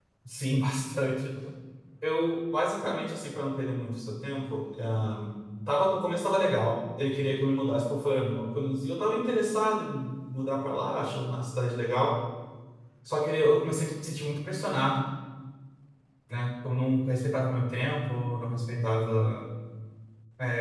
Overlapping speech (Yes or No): No